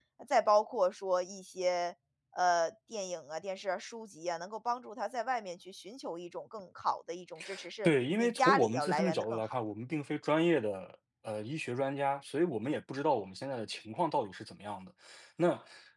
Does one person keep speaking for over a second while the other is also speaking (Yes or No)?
Yes